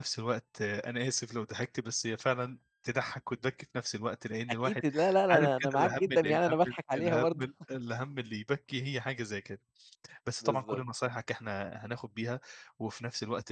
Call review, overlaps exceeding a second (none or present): present